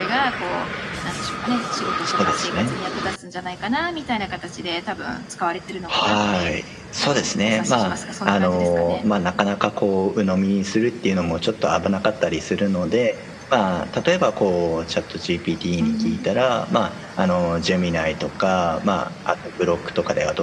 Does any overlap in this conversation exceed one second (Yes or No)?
Yes